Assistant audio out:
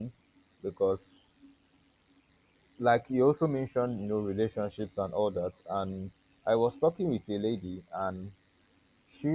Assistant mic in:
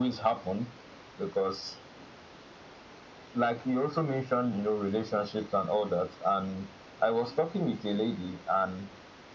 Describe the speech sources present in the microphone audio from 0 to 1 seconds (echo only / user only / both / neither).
echo only